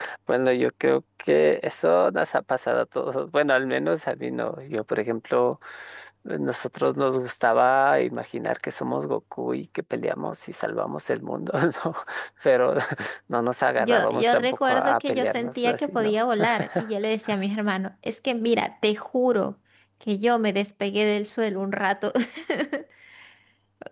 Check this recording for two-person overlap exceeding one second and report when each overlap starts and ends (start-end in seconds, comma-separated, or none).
13.8-16.1